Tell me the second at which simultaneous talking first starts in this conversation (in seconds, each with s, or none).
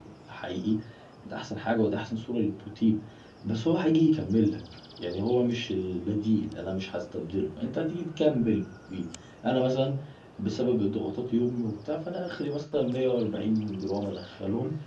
none